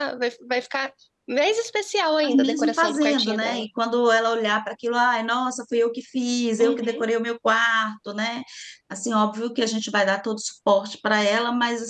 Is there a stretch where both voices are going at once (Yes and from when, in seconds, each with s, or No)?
Yes, from 2.2 s